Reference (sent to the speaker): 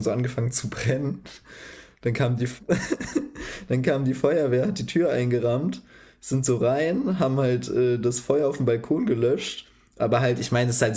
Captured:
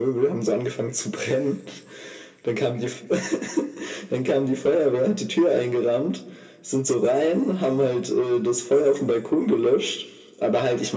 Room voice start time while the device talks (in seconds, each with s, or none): none